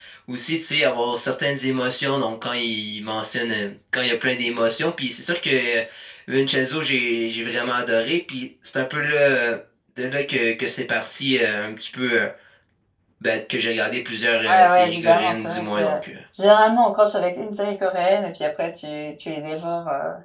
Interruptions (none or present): present